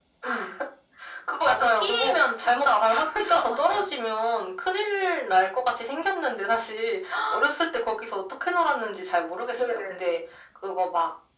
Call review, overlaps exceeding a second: present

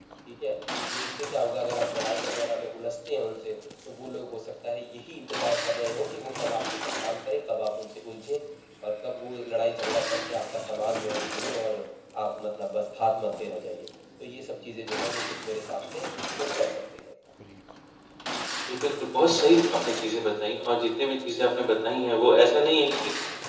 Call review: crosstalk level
none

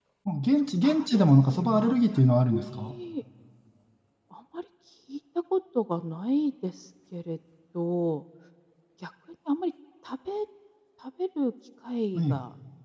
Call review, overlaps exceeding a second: present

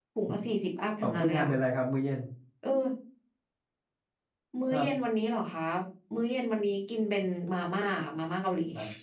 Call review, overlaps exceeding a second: none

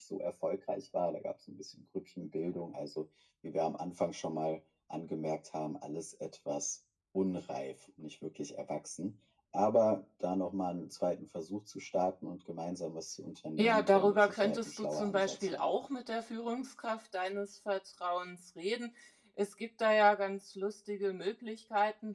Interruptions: present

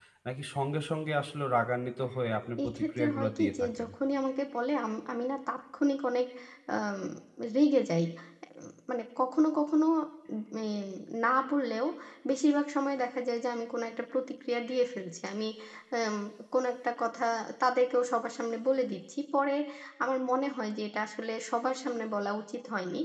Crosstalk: present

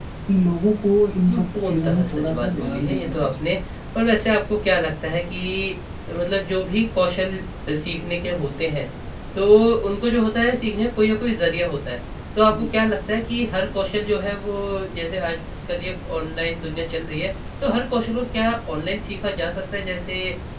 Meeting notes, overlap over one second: present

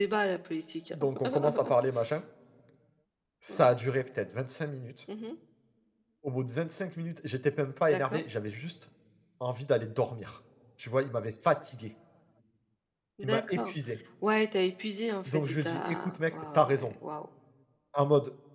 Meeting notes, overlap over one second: present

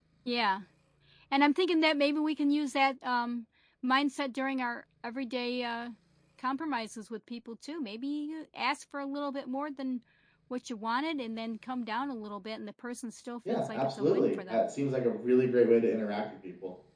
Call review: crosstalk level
present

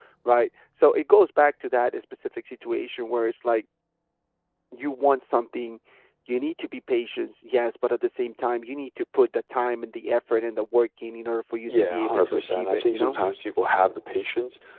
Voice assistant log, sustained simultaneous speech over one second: present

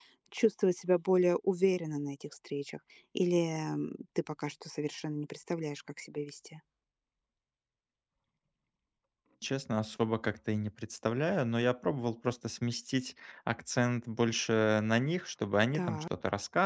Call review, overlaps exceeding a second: none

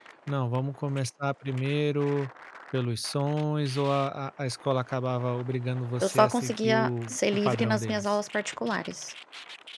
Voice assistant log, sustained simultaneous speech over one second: present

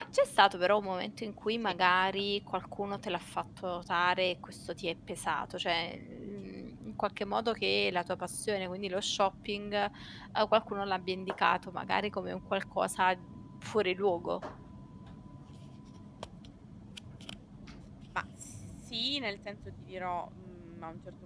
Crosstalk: none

